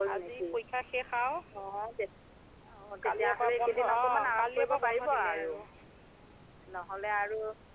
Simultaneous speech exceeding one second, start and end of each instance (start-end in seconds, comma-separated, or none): 3.0-5.5